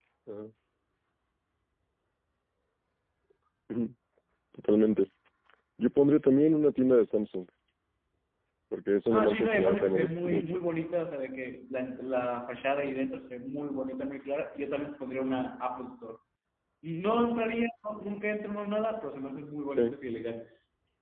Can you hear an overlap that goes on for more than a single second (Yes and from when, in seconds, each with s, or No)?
Yes, from 9.1 s